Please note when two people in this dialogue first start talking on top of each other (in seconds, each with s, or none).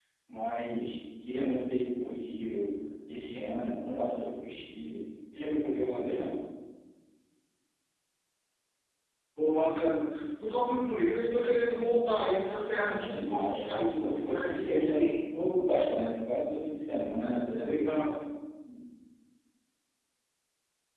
12.6 s